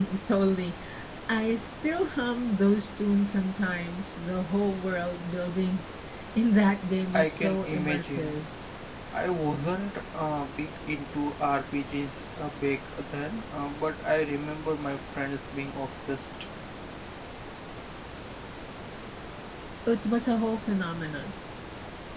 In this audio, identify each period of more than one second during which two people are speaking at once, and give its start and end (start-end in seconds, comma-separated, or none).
7.1-8.4